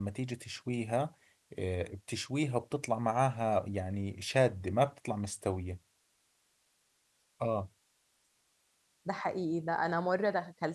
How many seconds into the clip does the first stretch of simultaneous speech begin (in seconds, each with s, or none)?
none